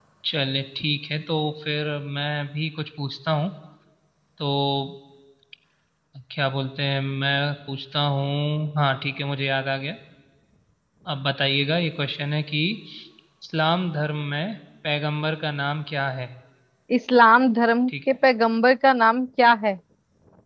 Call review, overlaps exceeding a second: none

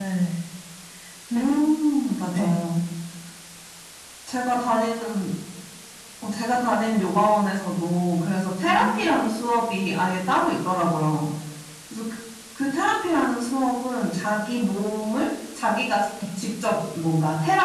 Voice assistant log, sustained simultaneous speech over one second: none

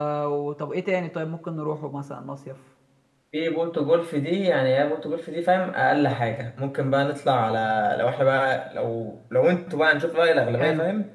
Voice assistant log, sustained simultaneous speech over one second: none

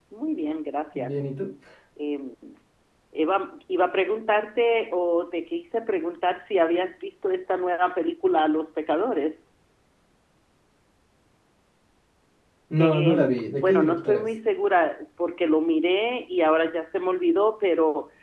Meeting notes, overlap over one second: present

